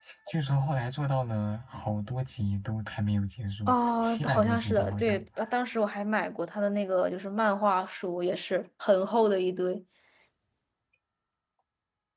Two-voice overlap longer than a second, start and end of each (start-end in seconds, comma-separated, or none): 3.7-5.2